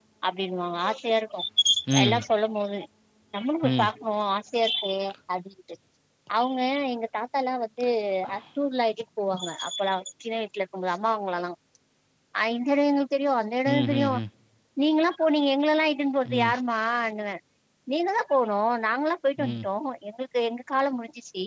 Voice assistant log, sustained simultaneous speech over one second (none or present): none